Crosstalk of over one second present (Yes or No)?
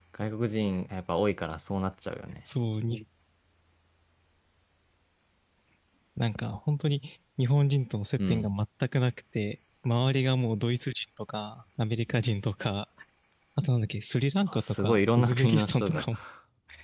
Yes